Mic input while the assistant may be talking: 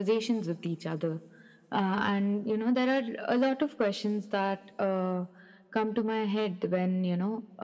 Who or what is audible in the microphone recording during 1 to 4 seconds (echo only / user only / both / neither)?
echo only